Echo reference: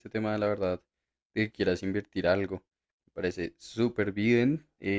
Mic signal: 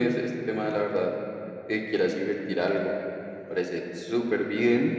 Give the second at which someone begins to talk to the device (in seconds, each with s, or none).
none